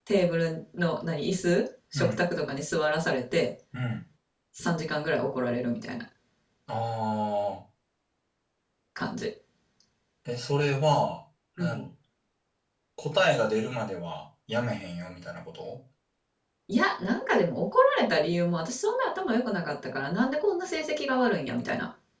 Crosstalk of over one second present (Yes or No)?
No